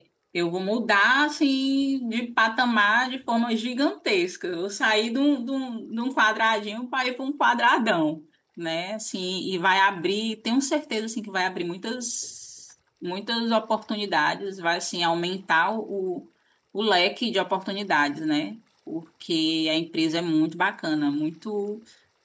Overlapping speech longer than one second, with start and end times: none

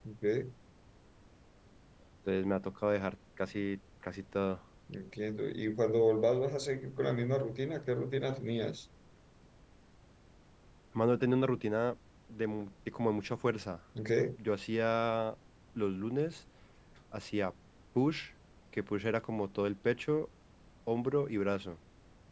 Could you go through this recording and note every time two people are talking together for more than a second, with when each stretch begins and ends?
none

